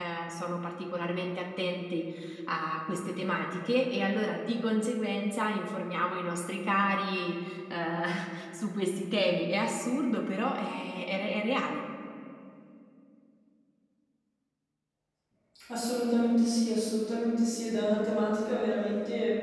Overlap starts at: none

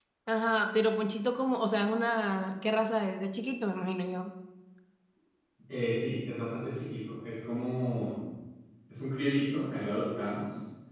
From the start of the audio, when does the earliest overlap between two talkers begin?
none

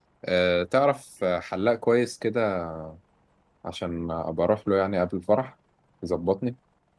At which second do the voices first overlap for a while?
none

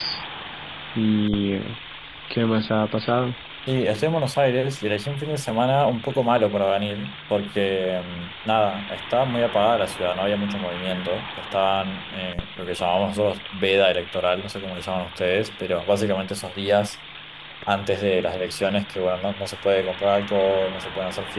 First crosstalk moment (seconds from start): none

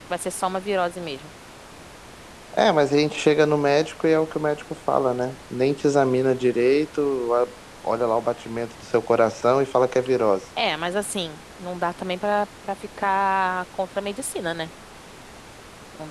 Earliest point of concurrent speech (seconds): none

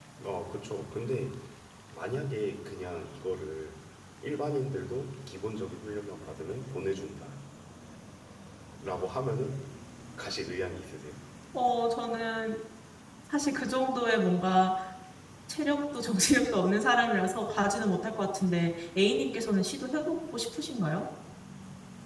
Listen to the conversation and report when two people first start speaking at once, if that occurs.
none

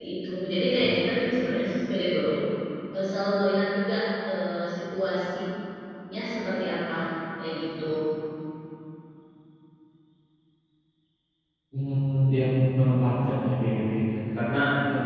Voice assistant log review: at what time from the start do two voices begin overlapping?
none

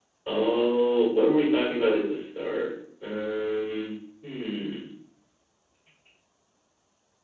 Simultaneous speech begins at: none

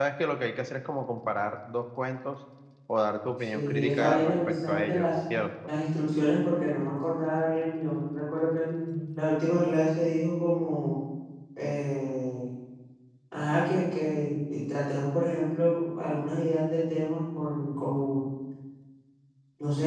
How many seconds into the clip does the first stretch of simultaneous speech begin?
3.5 s

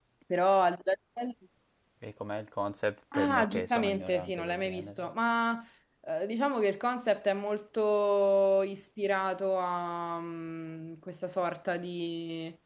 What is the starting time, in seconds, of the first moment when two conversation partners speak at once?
3.1 s

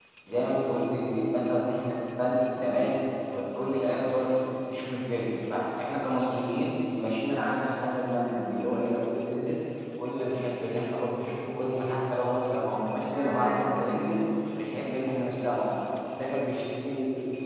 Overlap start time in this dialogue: 12.7 s

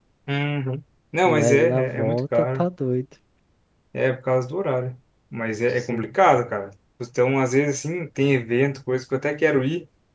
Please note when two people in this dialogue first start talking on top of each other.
1.2 s

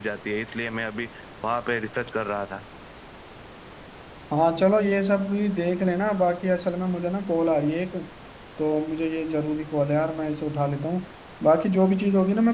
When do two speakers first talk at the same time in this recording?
none

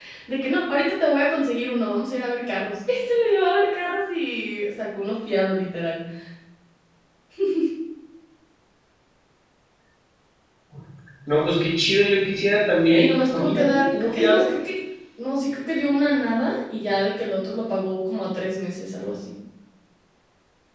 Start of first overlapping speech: 12.9 s

